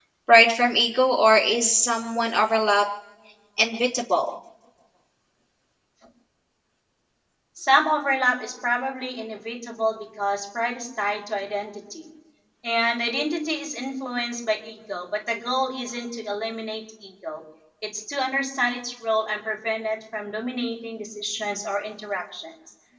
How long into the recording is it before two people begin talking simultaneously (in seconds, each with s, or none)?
none